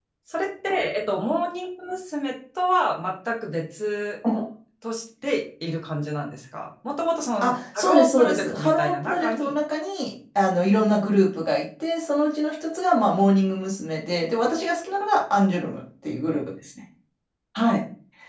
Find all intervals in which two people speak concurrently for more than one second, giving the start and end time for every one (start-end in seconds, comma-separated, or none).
7.4-9.5